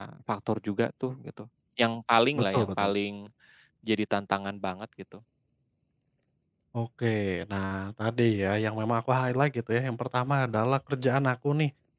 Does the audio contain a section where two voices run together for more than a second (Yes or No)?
No